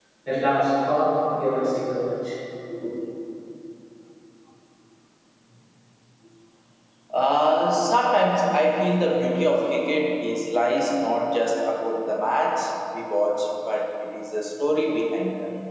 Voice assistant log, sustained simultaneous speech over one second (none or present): none